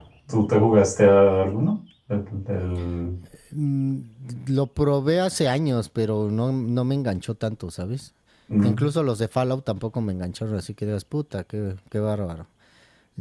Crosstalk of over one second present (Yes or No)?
No